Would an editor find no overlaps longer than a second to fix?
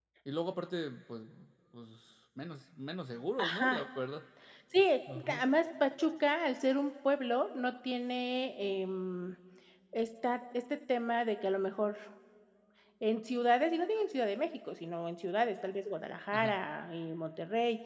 Yes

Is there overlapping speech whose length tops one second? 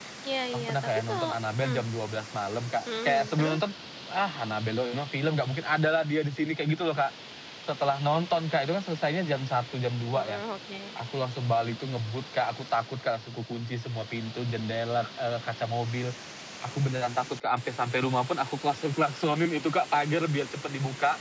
Yes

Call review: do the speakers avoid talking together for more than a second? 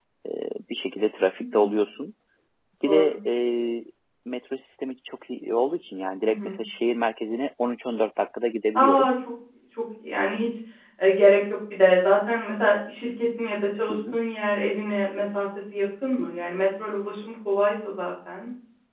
Yes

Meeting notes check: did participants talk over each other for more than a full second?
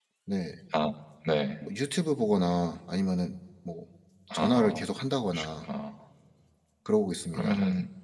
No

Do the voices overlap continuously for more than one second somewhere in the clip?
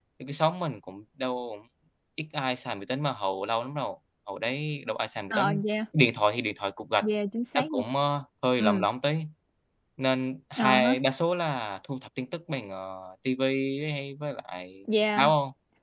No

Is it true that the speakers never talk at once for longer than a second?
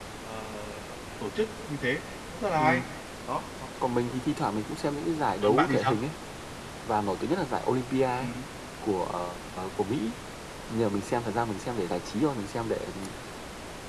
Yes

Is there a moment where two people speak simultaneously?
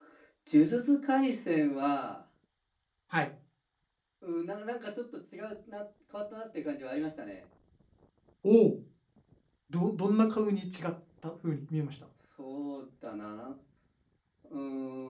No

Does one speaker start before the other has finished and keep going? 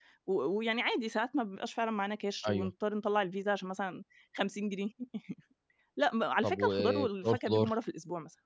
Yes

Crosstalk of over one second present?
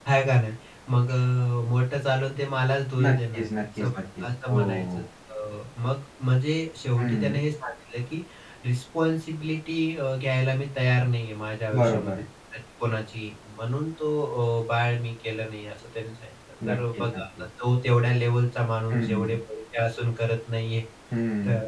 Yes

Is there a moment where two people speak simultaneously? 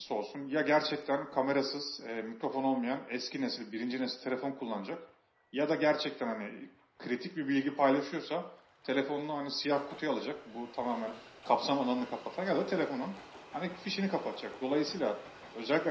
No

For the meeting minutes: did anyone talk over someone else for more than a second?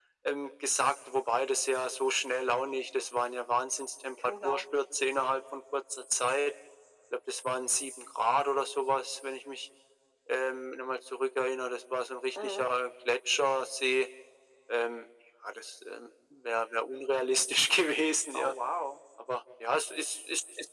No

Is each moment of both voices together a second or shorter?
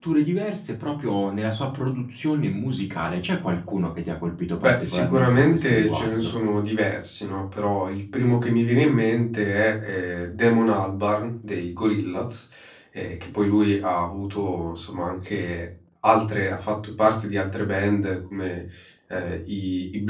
No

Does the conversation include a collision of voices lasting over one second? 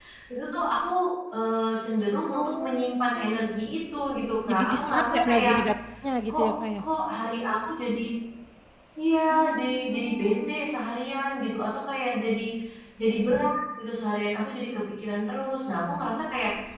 Yes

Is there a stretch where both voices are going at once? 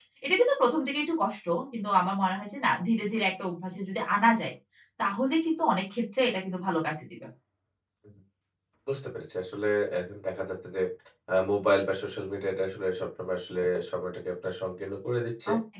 No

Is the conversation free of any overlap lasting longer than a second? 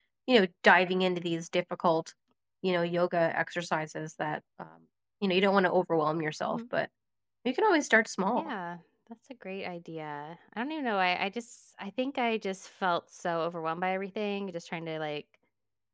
Yes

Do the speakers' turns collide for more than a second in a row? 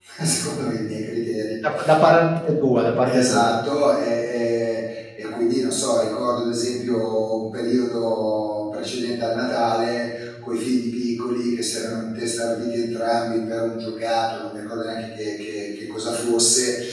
No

